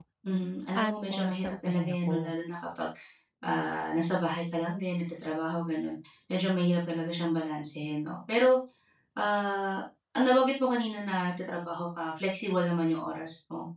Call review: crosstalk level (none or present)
present